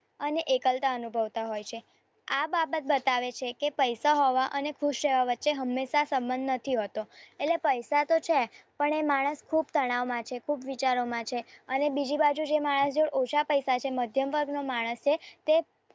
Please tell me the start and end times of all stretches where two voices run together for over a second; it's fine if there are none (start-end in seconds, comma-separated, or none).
none